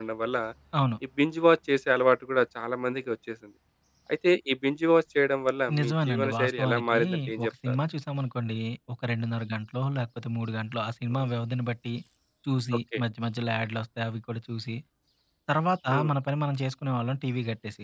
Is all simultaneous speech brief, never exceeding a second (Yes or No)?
No